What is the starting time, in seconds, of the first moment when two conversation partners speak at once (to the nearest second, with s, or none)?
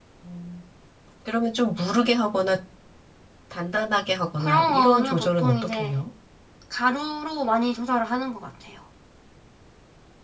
4 s